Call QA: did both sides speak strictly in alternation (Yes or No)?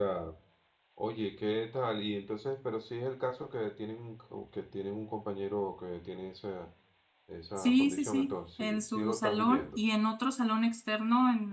No